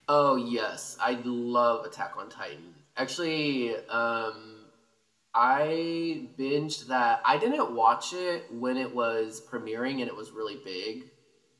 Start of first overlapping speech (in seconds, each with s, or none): none